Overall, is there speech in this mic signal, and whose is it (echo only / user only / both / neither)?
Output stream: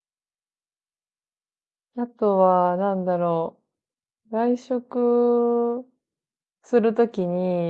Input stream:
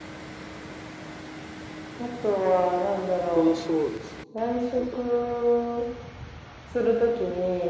both